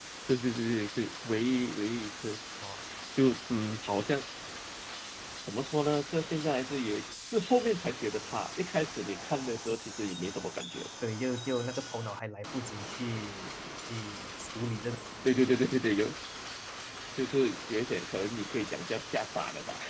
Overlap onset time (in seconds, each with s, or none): none